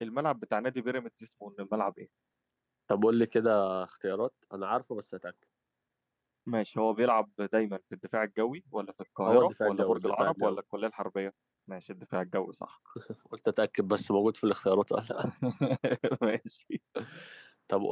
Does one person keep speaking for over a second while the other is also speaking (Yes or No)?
Yes